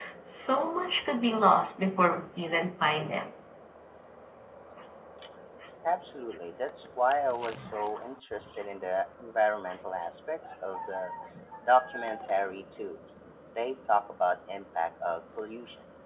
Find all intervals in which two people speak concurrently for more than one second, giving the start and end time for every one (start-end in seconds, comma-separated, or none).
none